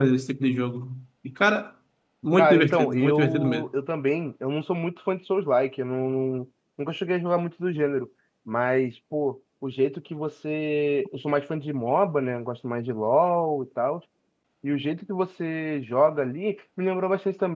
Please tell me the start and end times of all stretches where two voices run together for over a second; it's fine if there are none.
2.4-3.7

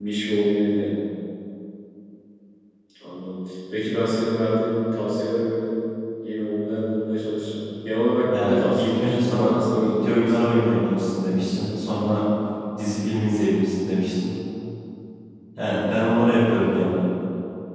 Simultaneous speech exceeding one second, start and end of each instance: 8.3-10.4

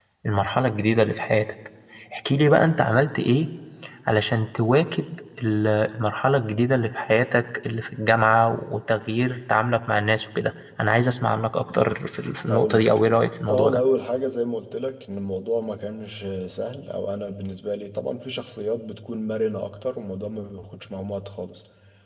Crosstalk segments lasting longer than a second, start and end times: none

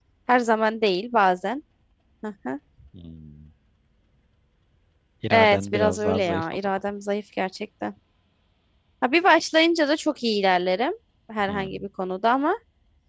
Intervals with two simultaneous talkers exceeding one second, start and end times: 5.3-6.7

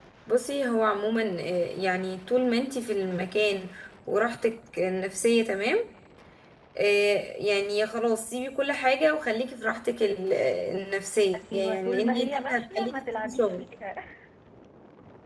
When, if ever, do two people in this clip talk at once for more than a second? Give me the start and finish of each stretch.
11.5-13.6

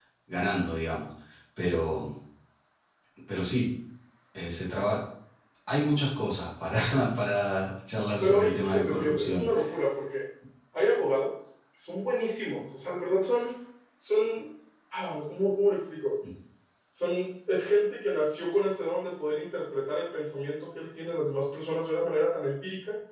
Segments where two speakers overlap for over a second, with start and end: 8.2-9.4

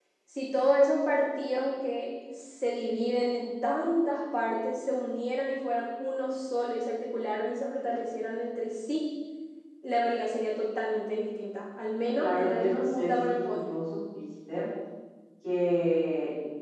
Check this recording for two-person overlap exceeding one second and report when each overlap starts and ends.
12.2-13.7

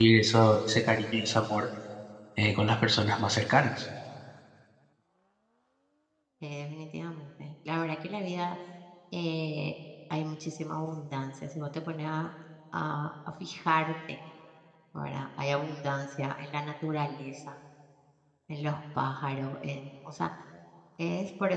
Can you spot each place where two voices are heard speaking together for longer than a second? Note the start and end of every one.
none

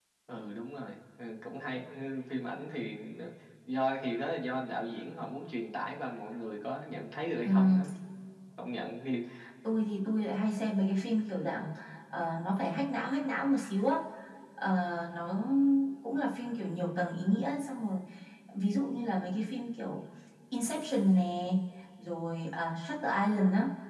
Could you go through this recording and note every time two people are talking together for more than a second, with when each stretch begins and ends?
none

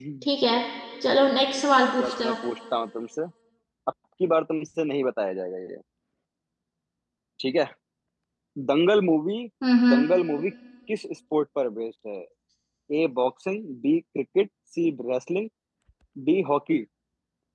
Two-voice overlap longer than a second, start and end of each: none

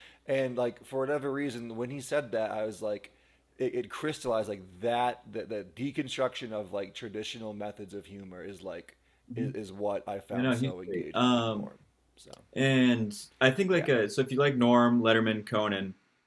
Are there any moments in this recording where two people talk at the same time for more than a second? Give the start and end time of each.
10.4-11.7

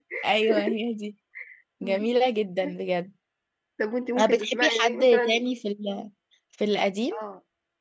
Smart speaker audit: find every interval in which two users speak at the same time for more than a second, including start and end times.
4.2-5.4

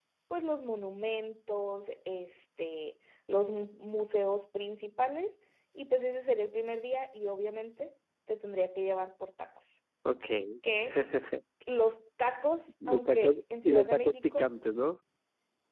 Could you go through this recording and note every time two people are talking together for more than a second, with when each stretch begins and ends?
12.9-14.5

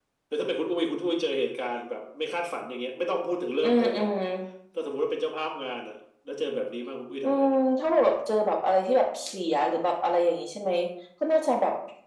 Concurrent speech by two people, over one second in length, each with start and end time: none

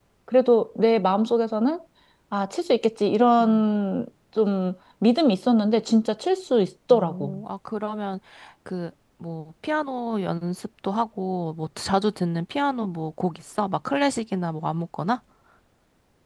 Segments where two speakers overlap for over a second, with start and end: none

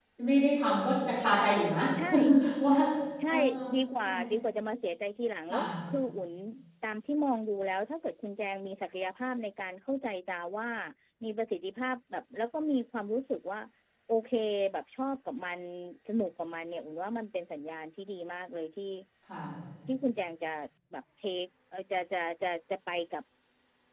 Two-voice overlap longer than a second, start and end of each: none

